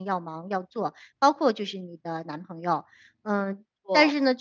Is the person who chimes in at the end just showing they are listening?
Yes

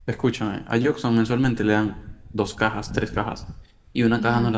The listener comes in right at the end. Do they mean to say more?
No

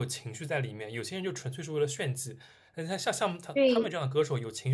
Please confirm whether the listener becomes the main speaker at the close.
No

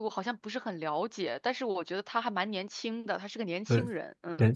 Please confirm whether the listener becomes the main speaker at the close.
Yes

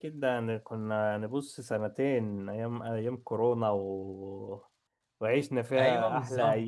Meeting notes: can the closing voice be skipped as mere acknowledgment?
Yes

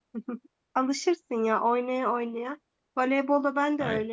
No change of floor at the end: Yes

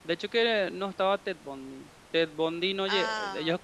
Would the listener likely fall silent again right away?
Yes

